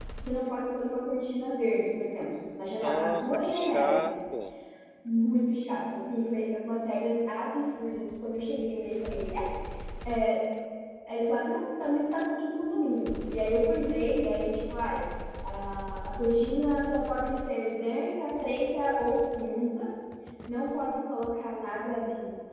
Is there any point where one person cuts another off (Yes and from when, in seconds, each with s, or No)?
Yes, from 2.8 s